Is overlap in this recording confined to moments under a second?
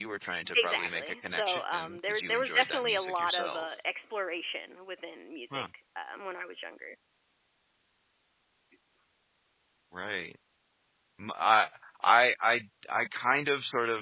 No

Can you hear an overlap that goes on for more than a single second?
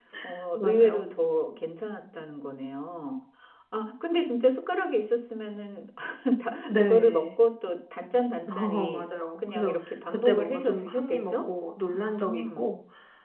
Yes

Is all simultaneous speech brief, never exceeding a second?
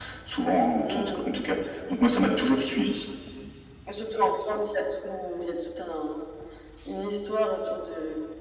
Yes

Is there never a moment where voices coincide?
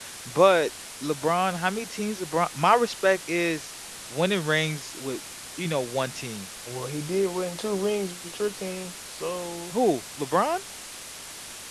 Yes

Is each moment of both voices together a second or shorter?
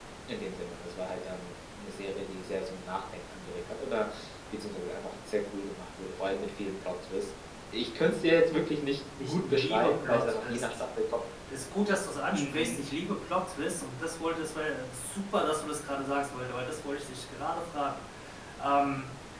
No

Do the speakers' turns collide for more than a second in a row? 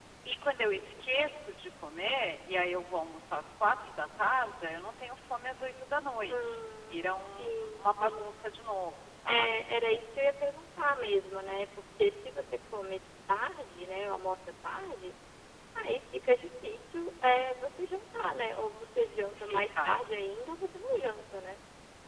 Yes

